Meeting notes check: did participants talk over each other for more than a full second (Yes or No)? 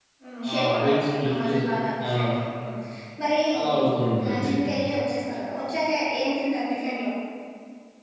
Yes